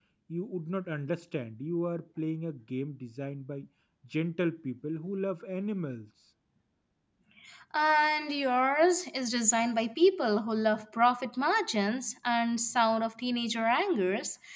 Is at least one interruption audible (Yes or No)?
No